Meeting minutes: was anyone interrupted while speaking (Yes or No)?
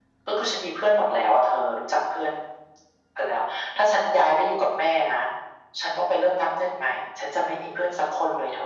No